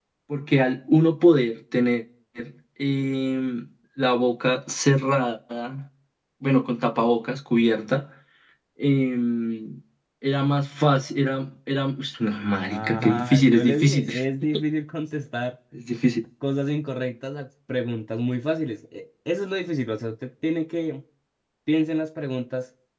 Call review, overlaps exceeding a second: present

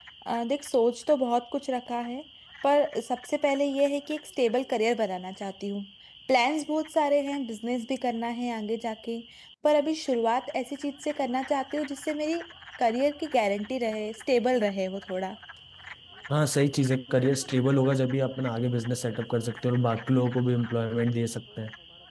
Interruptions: none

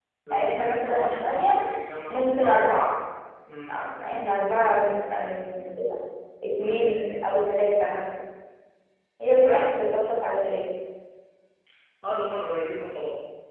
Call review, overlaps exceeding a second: present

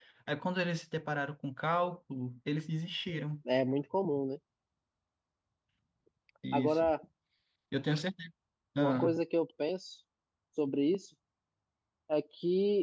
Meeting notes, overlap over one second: none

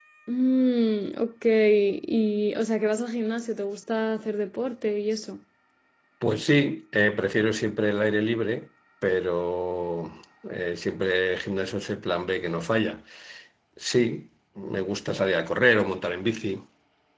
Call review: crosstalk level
none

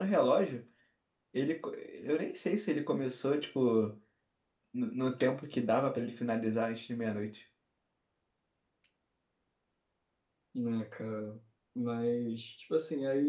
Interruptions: none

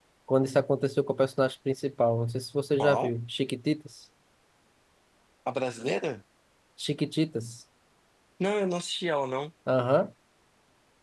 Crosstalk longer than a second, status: none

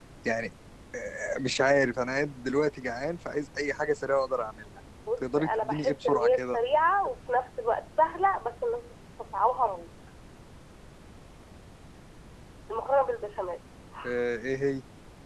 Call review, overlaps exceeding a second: present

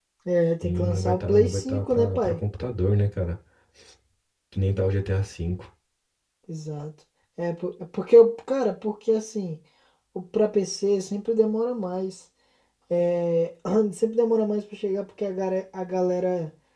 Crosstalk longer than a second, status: present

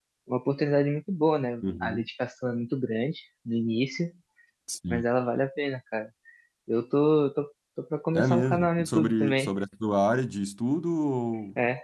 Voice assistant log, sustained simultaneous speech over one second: present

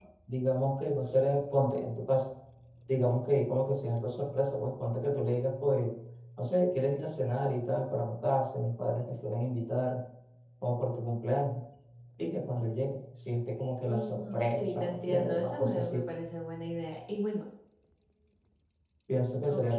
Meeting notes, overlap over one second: present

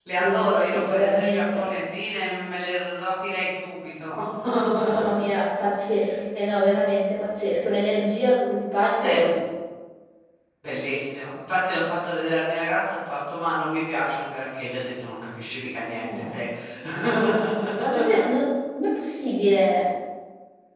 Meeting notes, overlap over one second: present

